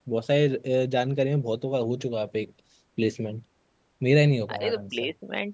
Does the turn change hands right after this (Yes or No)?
Yes